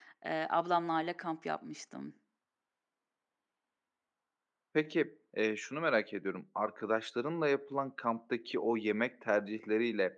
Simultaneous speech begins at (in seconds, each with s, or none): none